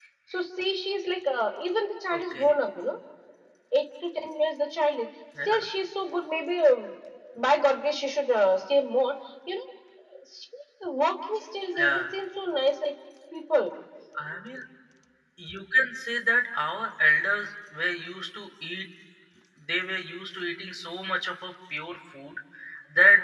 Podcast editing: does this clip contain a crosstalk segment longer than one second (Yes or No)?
No